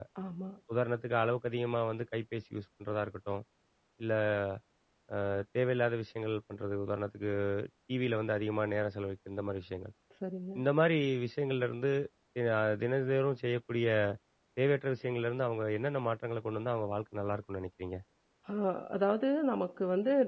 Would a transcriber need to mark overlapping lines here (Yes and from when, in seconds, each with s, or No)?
No